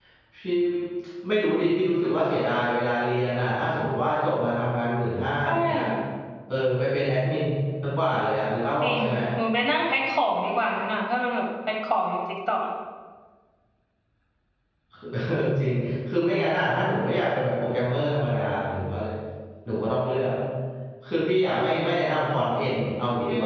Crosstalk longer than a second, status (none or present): none